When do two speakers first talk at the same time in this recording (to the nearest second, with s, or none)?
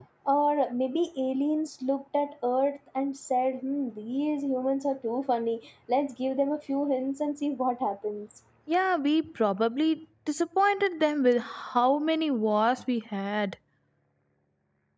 none